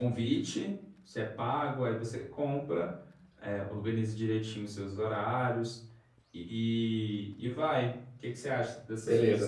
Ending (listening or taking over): taking over